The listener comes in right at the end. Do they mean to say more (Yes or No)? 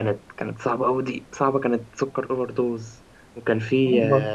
No